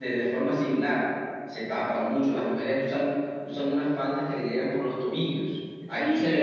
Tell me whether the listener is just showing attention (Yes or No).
No